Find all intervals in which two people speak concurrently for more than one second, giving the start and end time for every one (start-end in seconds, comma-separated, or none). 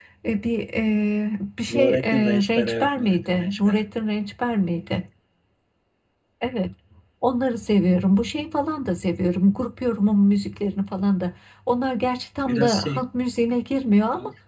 1.7-3.8